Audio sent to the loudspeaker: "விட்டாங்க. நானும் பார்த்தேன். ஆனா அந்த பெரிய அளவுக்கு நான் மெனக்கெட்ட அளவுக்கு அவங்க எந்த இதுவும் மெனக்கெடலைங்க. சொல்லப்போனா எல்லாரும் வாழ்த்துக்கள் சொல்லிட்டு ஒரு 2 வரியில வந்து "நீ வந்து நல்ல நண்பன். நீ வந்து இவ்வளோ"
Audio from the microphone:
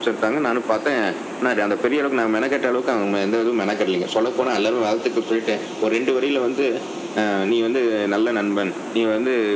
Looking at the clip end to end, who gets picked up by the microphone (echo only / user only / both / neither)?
echo only